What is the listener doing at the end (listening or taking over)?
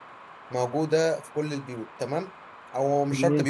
listening